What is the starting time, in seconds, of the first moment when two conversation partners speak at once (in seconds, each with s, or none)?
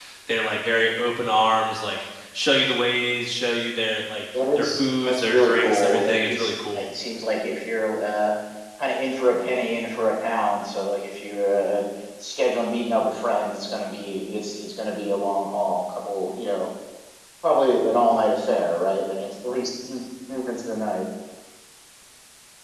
4.3 s